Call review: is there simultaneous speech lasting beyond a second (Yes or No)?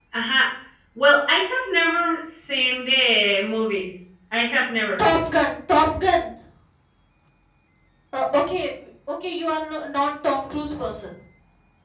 No